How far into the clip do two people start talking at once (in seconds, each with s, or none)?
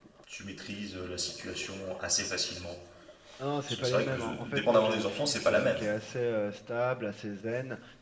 3.7 s